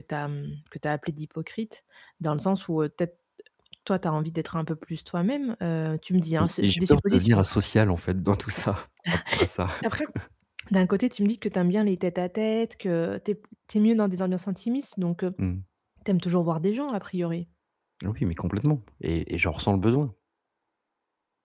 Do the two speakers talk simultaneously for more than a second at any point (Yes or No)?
Yes